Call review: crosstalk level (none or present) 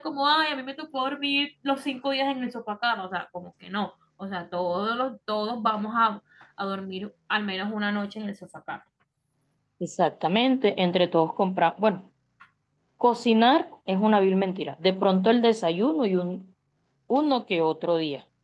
none